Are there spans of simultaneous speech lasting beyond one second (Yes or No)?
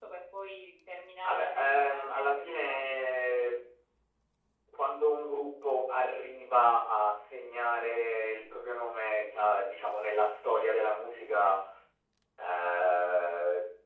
Yes